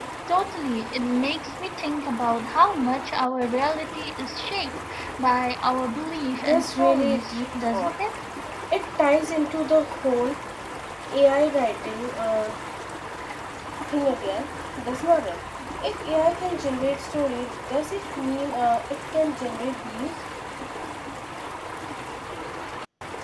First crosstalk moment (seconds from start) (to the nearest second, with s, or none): 6 s